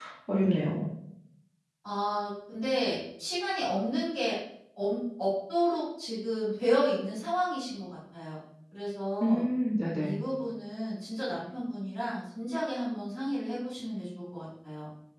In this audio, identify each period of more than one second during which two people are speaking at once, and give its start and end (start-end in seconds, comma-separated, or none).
none